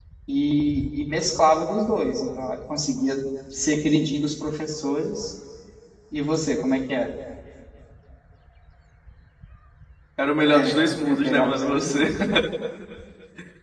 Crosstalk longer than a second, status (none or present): present